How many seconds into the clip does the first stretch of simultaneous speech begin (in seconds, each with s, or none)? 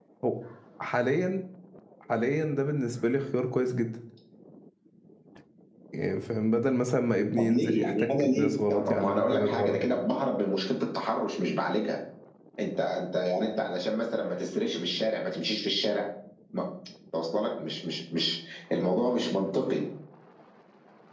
7.4 s